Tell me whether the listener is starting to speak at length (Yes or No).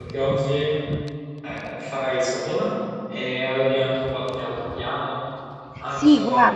Yes